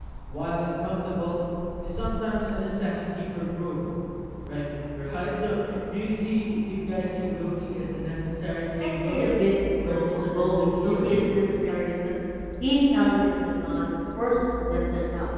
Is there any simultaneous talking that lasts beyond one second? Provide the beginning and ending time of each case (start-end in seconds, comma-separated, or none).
9.8-11.2